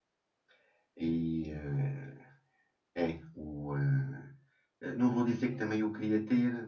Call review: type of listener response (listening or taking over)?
listening